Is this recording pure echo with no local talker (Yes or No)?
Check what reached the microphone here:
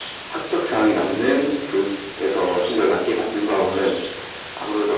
Yes